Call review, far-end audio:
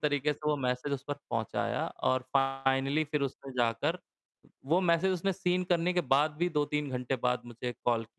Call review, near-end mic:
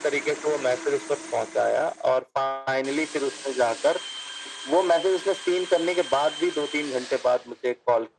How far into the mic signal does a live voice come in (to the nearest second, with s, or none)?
none